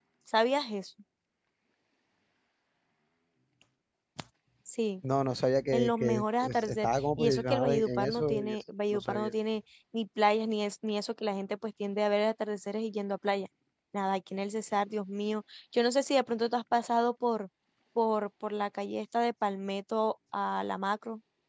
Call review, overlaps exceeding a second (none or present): present